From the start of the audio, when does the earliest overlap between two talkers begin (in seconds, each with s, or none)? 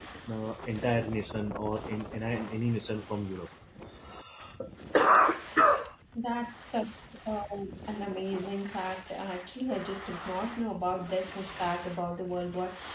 none